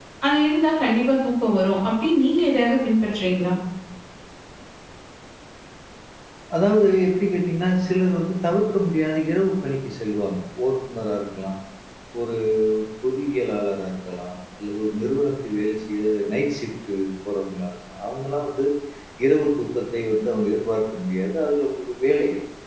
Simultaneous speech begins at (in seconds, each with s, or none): none